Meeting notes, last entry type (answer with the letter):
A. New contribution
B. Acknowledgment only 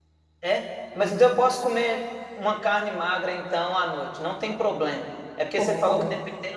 B